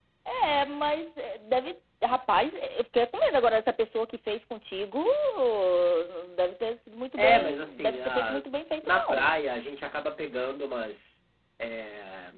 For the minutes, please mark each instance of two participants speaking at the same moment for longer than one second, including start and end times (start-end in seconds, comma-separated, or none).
7.2-8.4